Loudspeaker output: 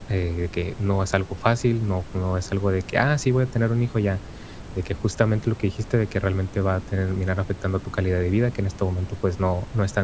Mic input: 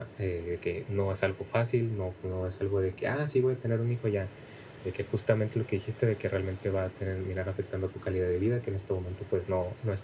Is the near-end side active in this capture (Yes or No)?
No